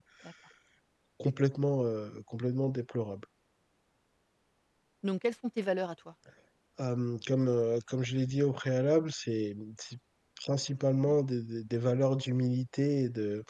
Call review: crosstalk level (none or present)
none